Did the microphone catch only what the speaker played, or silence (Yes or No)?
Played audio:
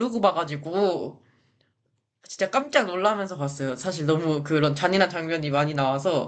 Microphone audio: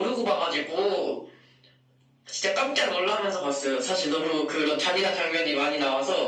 Yes